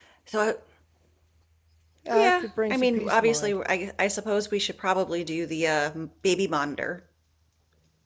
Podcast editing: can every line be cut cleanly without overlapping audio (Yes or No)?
No